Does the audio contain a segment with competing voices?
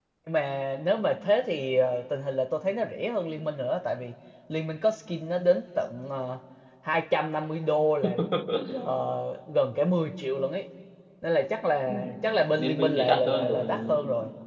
Yes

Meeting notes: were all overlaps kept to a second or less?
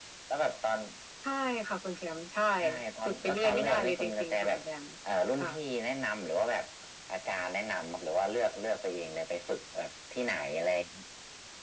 No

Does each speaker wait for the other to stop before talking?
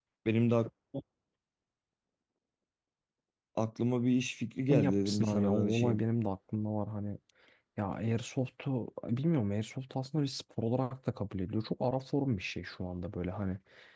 No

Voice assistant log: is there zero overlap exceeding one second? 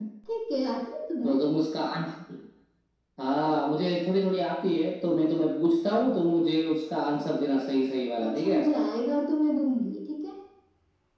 Yes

